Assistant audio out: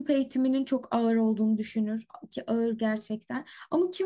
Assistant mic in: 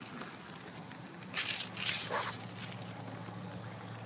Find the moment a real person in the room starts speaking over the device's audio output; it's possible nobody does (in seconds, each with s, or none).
none